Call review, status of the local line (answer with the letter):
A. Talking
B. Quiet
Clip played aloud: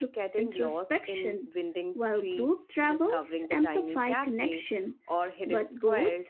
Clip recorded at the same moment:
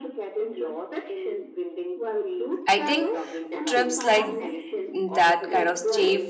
A